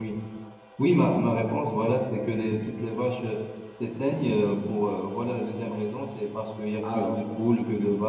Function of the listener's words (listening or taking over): listening